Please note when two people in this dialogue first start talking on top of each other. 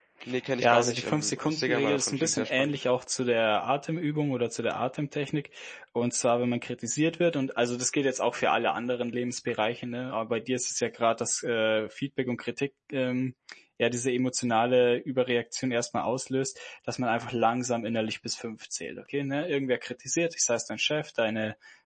0.6 s

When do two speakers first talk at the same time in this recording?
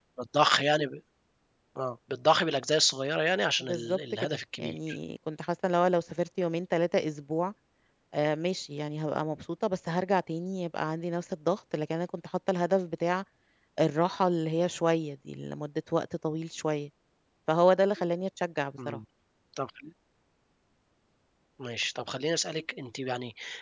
3.6 s

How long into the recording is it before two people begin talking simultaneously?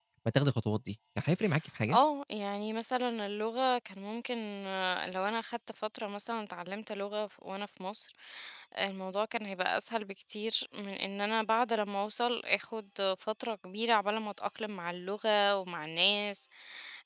none

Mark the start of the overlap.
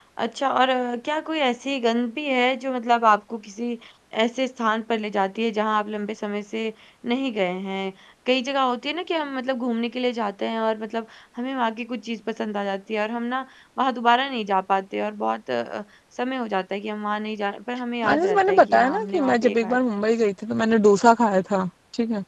18.0 s

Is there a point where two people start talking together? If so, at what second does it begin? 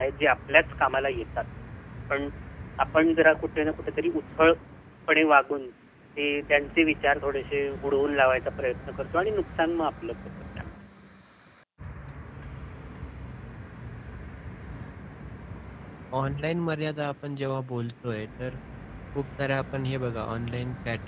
none

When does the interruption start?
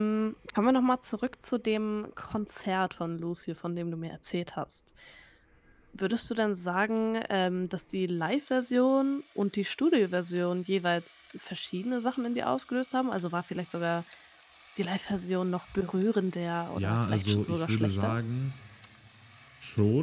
16.8 s

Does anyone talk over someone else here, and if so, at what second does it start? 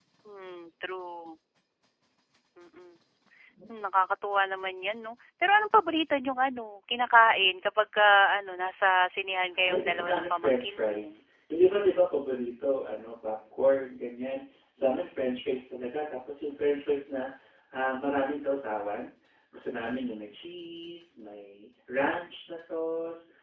9.5 s

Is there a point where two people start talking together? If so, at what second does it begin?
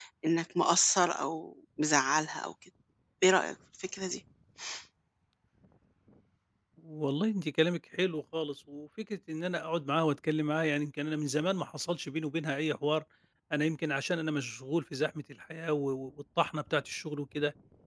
none

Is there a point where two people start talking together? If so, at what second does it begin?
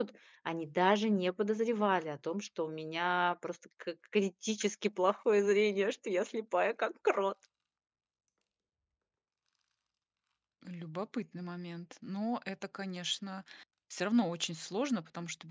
none

